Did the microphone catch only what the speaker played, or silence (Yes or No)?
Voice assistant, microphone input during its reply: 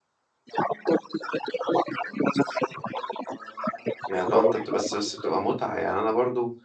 No